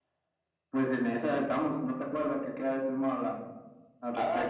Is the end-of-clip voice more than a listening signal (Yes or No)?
Yes